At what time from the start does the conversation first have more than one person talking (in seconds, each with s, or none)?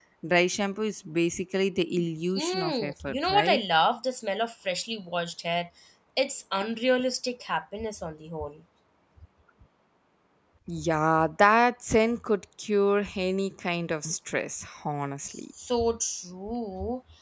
2.4 s